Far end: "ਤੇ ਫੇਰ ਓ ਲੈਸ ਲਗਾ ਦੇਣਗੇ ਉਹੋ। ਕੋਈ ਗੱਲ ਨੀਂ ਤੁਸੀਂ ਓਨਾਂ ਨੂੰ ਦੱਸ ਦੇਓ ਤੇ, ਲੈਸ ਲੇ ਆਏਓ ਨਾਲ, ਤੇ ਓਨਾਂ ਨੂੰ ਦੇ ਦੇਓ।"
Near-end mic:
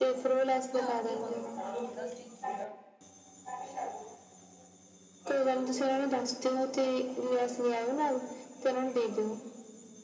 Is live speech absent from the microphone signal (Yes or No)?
No